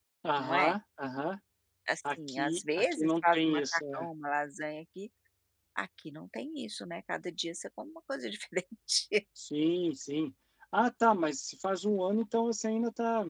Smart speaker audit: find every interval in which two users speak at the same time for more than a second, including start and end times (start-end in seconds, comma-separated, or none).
2.3-4.1